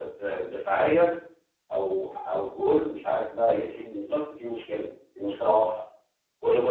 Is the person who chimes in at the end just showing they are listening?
No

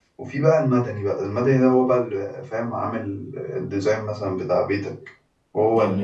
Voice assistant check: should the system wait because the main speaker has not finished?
No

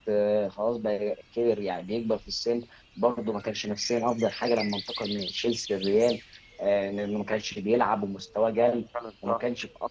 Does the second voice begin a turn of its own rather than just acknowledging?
No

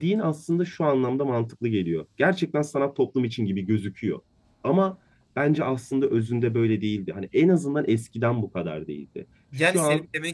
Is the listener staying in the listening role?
No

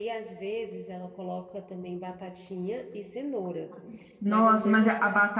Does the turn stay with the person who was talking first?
No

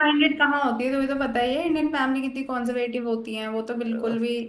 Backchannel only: No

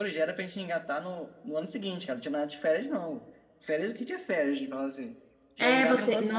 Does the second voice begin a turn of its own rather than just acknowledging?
Yes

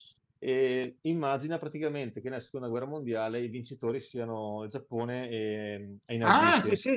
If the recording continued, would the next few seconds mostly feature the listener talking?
Yes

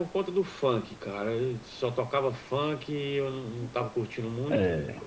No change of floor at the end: Yes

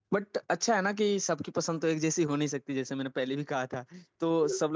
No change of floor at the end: Yes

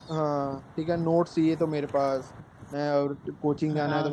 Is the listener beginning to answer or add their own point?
No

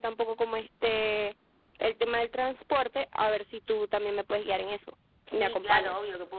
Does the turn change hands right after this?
Yes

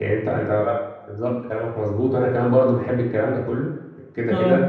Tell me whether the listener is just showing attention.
Yes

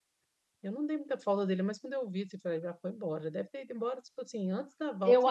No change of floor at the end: No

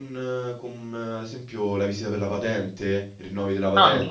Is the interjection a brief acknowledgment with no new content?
Yes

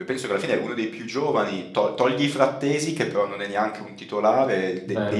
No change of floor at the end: Yes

